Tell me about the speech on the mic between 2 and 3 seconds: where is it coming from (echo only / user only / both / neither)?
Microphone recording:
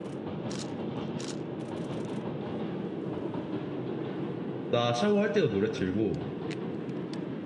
neither